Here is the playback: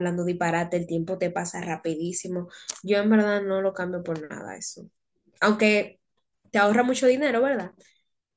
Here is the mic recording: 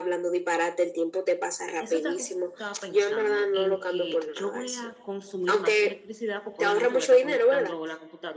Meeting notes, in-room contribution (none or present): present